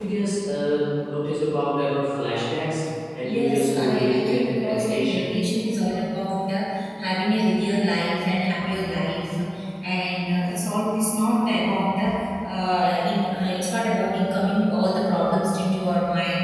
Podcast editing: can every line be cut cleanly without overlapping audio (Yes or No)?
No